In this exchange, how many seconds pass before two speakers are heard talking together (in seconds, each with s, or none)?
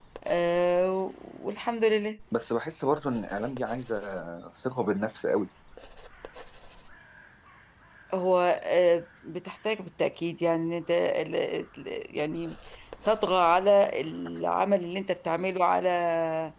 none